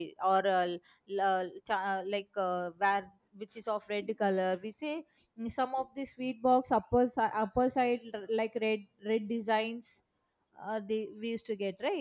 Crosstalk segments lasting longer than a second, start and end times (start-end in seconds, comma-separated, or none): none